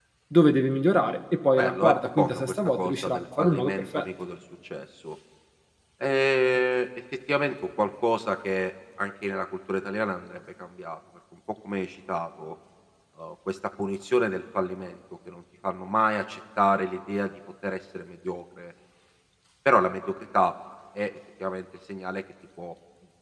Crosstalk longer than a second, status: present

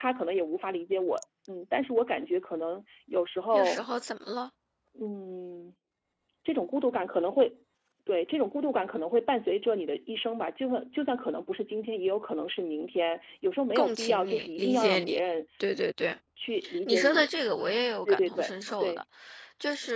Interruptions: present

